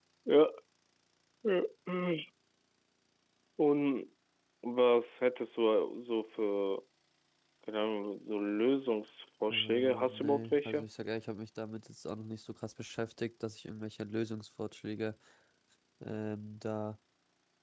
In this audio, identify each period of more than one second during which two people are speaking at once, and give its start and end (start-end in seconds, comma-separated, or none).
9.5-10.9